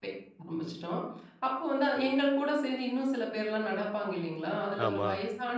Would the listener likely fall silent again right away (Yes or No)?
Yes